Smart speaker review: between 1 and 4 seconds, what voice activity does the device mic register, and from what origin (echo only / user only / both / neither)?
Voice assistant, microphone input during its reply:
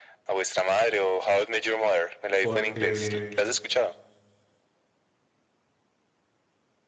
both